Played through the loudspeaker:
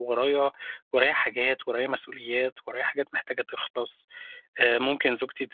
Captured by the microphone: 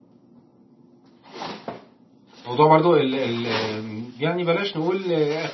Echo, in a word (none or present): none